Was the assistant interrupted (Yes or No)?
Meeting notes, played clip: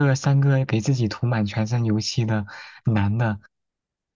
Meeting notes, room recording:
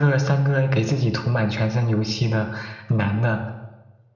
No